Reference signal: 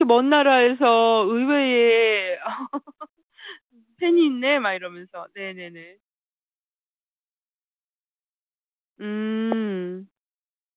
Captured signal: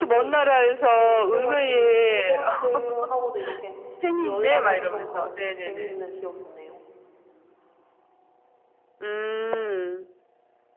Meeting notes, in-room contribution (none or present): present